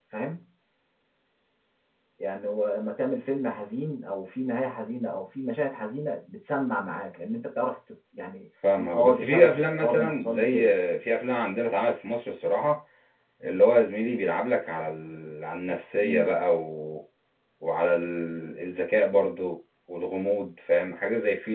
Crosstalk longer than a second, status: present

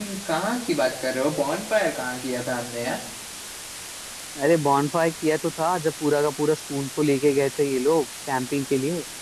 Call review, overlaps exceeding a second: none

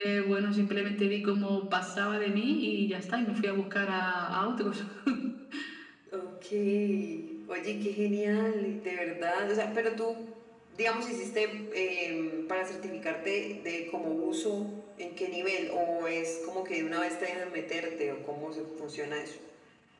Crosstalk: none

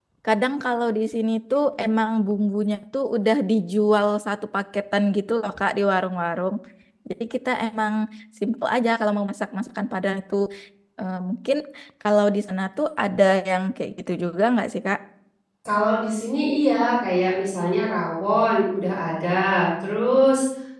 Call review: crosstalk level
none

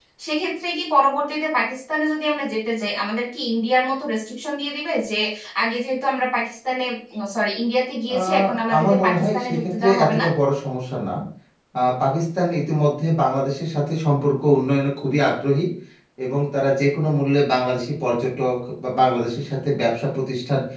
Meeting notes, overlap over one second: present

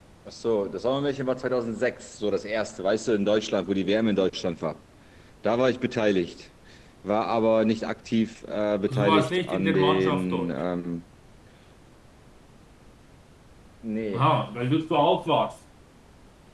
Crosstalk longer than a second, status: present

